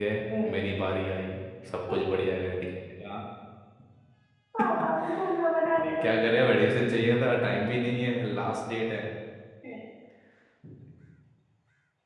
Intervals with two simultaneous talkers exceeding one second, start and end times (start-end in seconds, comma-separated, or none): none